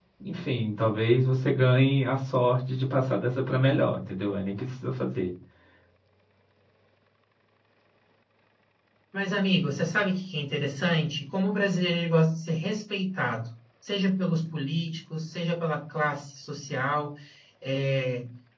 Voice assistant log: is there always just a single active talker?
Yes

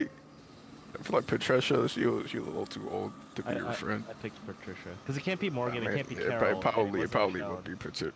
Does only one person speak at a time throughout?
No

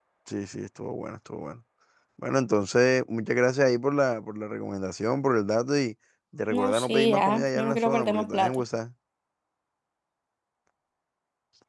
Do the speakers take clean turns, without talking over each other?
No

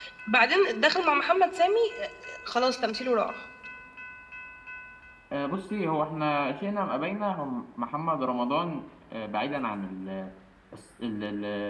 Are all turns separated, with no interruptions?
Yes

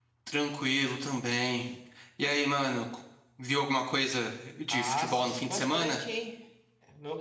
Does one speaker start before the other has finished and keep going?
Yes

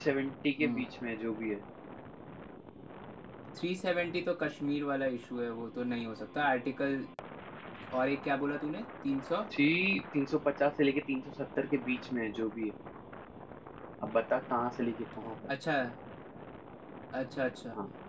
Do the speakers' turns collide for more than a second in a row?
No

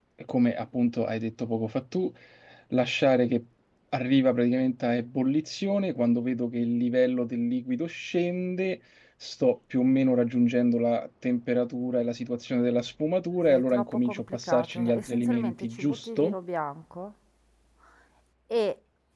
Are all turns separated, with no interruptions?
No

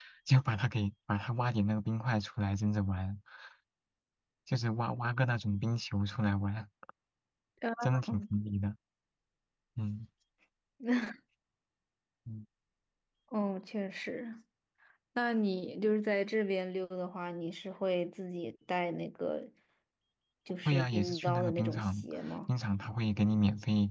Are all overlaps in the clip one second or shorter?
No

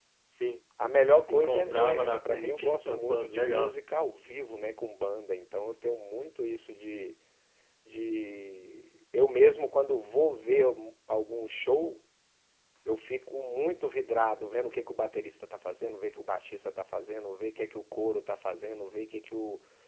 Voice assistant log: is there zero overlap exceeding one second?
No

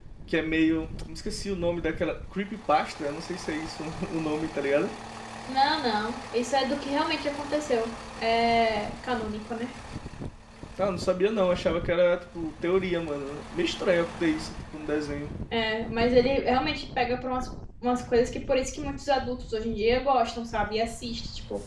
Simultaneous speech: No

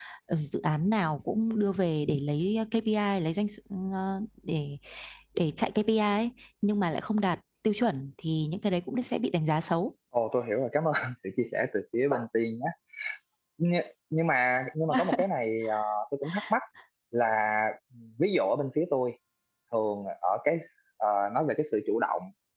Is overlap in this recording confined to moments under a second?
Yes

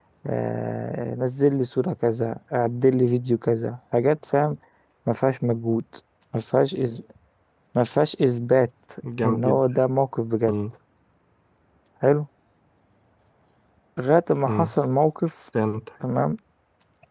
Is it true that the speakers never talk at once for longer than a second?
Yes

